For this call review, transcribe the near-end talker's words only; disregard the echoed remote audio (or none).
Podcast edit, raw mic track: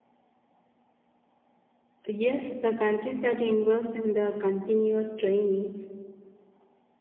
Yes, the countries that invest in the continuous training